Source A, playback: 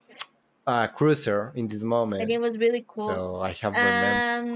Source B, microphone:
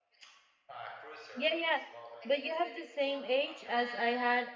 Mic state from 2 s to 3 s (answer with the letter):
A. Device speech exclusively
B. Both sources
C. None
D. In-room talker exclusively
B